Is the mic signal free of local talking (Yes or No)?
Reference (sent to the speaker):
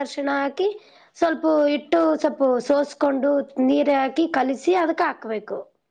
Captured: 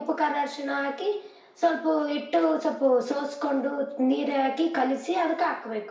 Yes